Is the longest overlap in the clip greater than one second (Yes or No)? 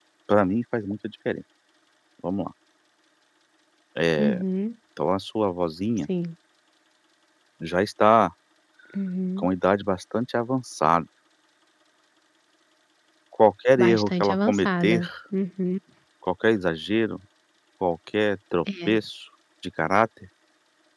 Yes